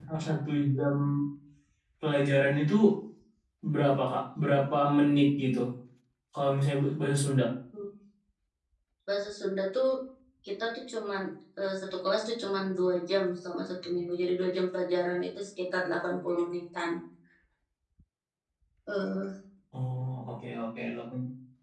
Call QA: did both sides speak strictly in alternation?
Yes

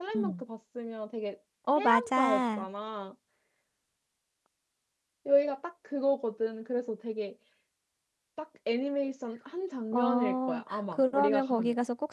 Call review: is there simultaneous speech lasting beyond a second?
Yes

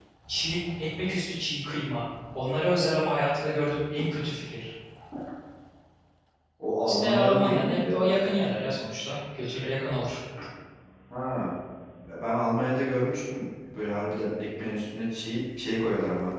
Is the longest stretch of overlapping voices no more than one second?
No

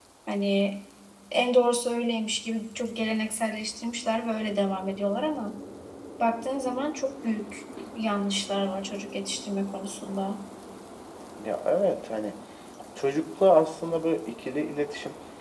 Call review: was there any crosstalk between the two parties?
No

